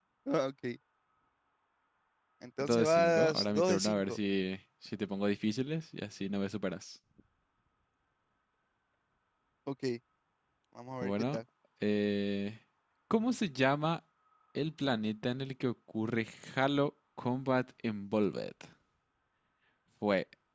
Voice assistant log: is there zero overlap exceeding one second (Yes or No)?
No